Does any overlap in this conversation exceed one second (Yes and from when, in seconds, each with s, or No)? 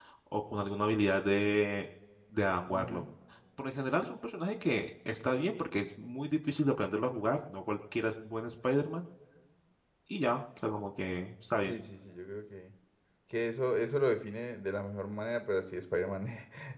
No